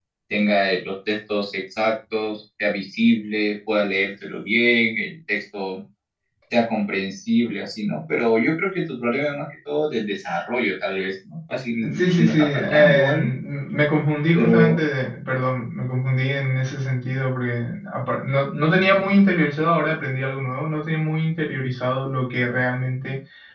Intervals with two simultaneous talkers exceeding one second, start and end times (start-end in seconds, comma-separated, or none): 12.0-13.3